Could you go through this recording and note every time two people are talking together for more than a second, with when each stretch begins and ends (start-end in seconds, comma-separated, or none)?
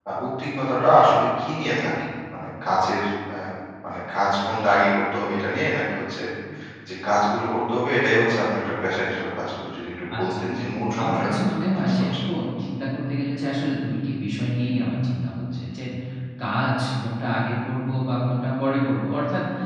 11.0-12.2